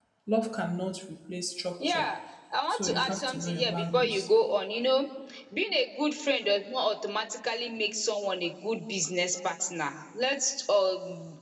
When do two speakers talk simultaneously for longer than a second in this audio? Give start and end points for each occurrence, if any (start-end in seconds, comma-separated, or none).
2.7-4.3